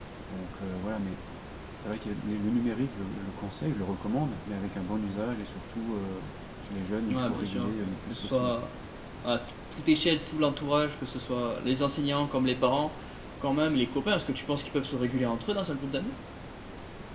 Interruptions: present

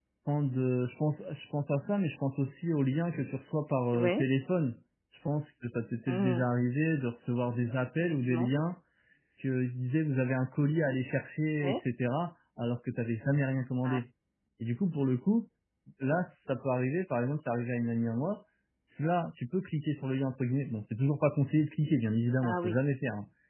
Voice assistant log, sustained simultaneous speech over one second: none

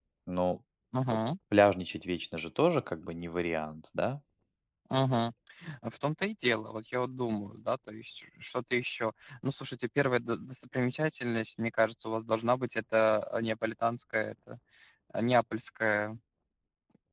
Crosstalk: none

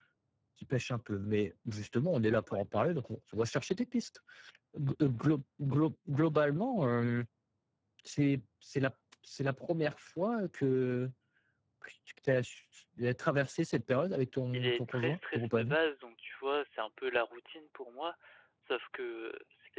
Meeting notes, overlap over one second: present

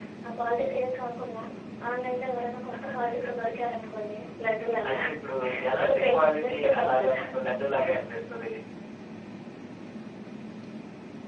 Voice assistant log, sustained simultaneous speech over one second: present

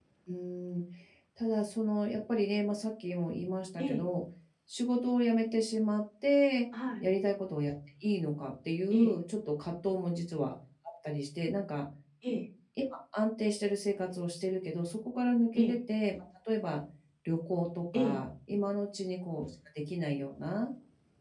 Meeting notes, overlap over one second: none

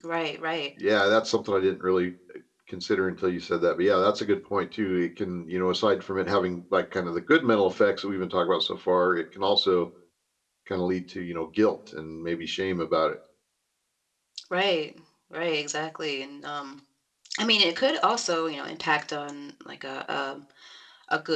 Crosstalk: none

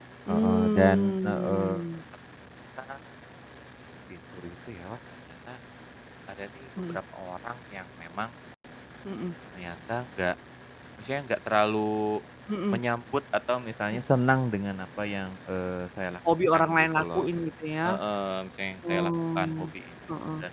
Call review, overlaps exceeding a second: present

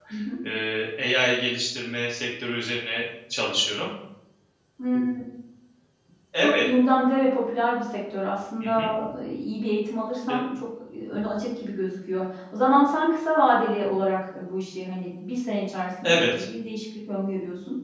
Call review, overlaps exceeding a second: none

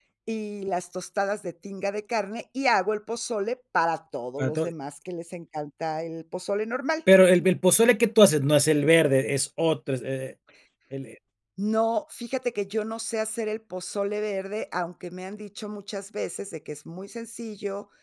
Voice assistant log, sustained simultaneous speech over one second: none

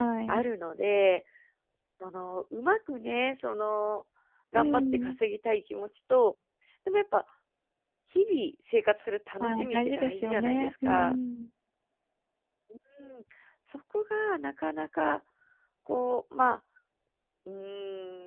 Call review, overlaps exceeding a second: present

